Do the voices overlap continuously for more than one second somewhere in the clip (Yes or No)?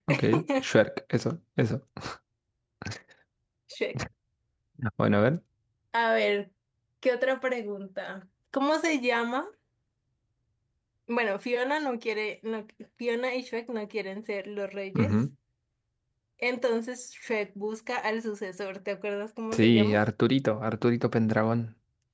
No